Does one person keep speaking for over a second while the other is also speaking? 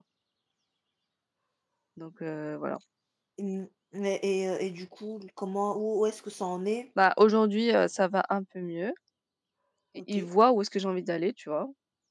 No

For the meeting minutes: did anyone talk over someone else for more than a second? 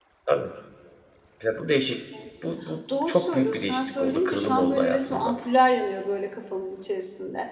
Yes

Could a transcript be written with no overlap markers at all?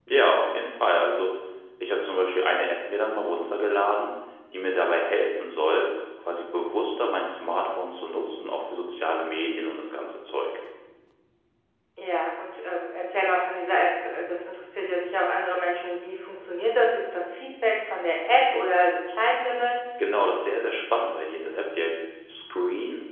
Yes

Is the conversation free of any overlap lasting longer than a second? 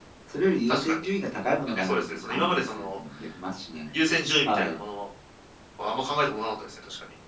No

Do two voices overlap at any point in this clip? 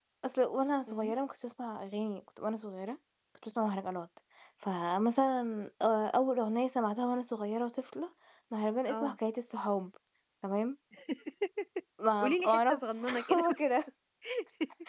Yes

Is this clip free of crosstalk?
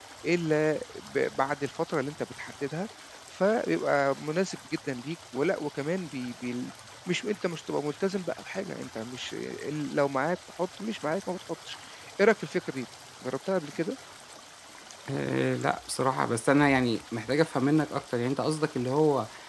Yes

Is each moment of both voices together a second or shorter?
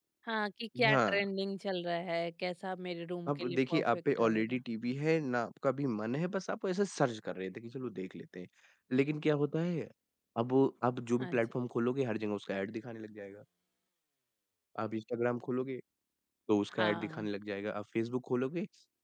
No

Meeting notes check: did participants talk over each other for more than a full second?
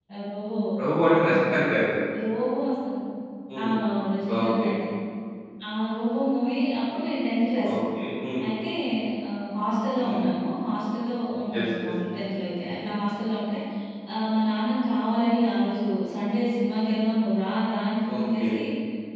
No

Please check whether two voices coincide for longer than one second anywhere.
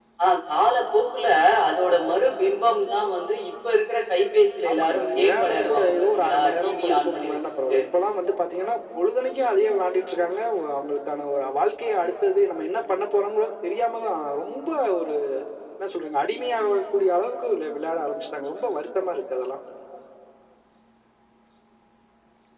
Yes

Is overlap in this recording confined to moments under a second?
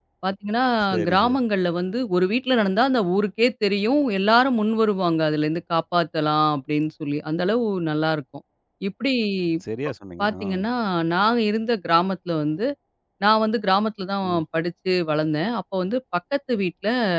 Yes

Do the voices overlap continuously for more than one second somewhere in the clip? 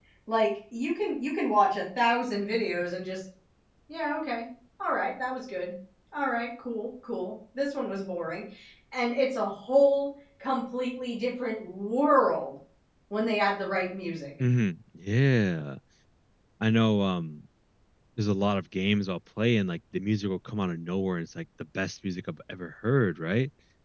No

